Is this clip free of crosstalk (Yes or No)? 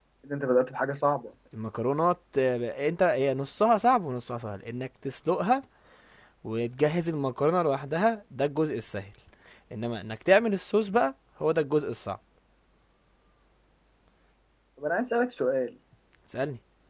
Yes